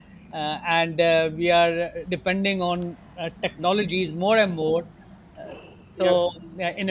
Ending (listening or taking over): listening